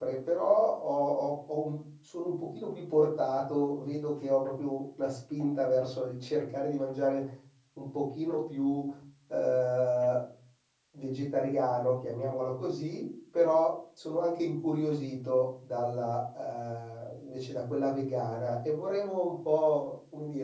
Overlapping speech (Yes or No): No